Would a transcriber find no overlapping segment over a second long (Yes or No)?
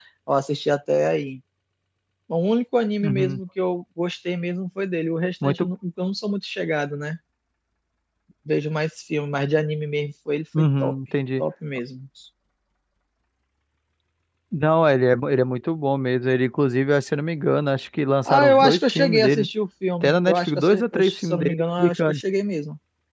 No